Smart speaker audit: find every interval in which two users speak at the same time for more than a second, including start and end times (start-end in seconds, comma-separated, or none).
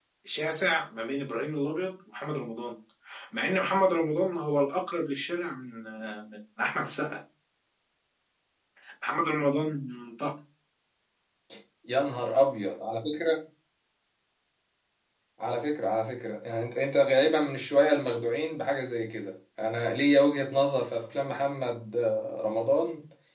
none